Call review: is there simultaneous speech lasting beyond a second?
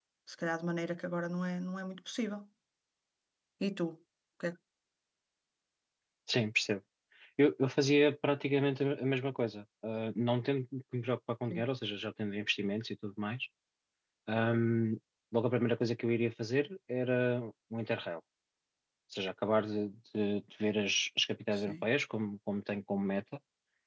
No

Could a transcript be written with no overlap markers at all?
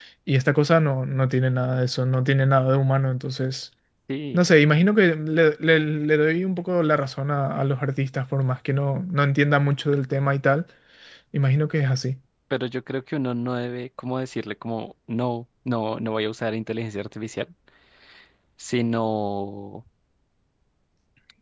Yes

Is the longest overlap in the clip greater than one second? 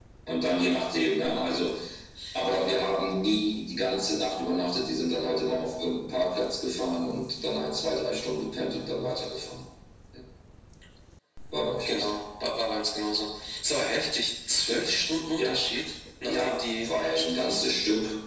Yes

